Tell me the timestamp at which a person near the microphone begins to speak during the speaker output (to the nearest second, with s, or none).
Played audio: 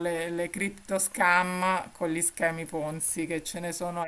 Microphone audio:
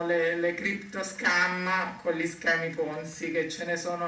none